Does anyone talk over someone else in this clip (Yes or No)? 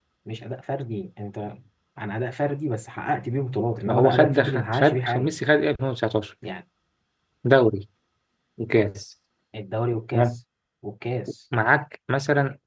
Yes